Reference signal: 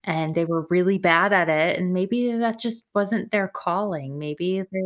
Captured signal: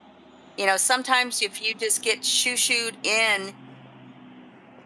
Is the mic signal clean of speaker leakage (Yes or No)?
Yes